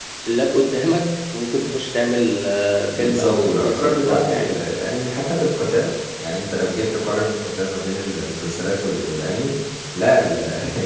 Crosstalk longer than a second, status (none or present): present